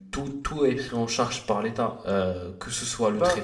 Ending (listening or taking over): listening